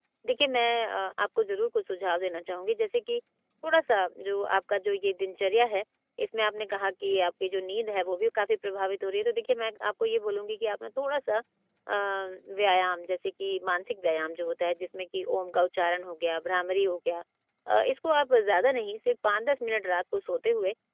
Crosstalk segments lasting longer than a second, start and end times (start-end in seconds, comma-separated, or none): none